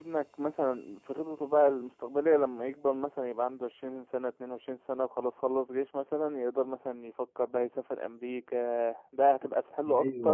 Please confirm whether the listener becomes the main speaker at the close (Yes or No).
Yes